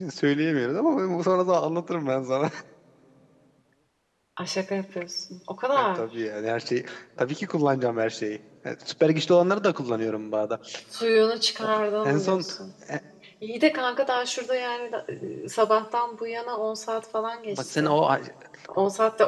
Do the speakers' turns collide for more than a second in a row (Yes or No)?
No